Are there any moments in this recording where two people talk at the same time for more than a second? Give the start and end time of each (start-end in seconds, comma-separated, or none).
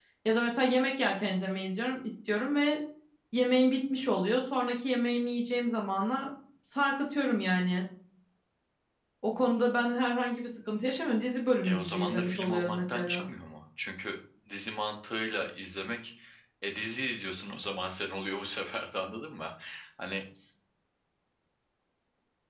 11.6-13.2